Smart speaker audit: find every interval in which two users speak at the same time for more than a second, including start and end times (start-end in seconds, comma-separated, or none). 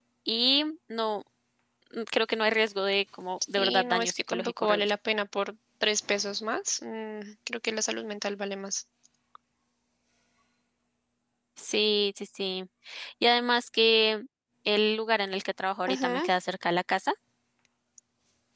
3.6-4.9